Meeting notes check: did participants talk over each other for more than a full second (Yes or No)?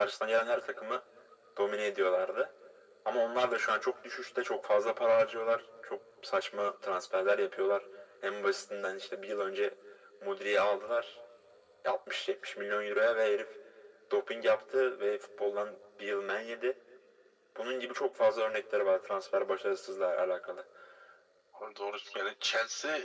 No